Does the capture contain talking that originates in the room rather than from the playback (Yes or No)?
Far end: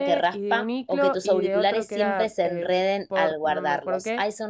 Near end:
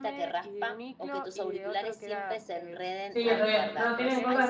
Yes